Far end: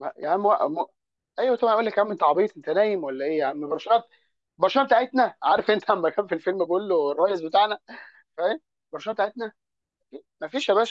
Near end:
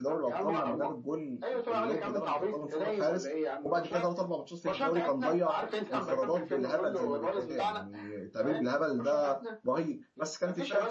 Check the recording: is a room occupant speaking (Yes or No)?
Yes